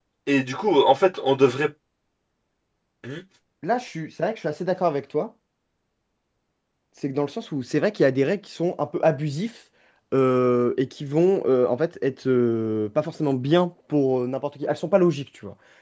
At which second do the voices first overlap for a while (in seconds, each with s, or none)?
none